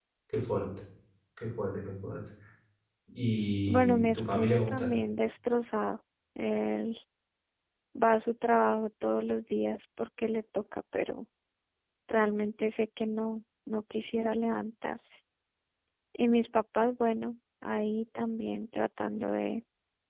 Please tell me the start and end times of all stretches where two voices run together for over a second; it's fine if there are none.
3.7-4.9

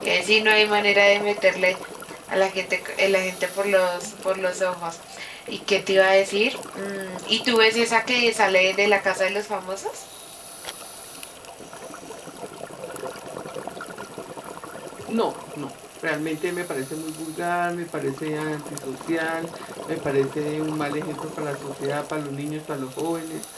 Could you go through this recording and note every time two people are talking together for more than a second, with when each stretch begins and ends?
none

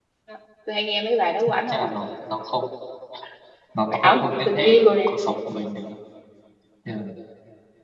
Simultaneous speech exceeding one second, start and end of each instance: 3.9-5.1

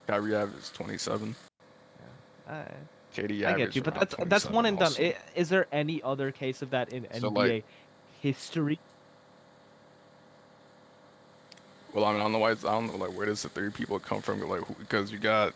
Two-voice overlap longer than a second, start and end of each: 3.5-5.0

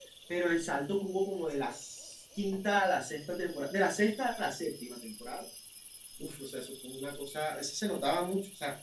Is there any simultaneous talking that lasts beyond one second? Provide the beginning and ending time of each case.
none

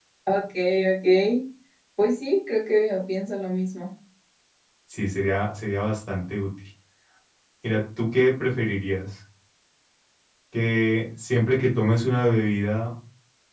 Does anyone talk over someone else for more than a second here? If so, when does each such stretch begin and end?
none

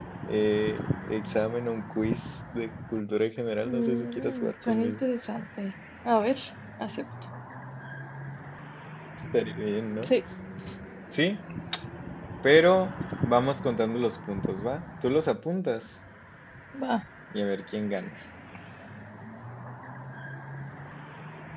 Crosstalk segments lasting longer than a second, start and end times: 3.7-5.0

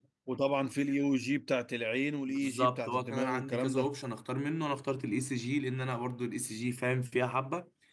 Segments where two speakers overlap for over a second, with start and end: 2.3-3.9

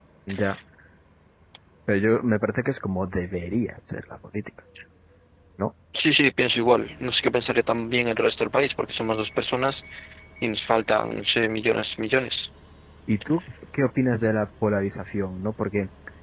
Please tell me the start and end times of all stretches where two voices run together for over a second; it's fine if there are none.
none

